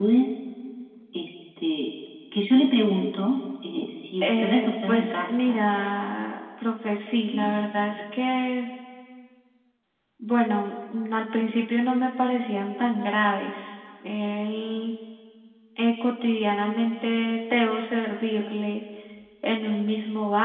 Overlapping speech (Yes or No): Yes